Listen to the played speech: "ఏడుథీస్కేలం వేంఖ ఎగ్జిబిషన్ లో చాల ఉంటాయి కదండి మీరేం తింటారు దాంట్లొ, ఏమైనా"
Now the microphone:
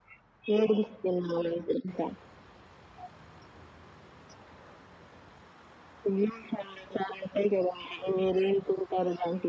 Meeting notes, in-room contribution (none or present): none